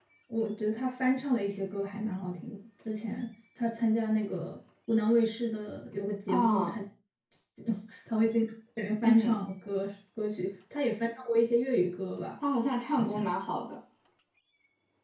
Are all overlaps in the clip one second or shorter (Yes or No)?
Yes